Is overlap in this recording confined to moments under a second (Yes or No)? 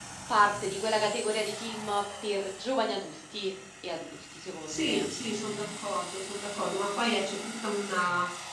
Yes